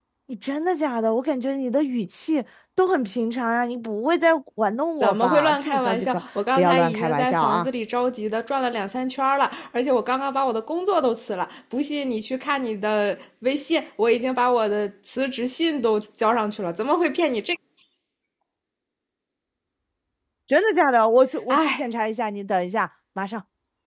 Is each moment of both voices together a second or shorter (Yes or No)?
No